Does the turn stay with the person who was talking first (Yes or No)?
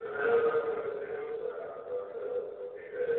No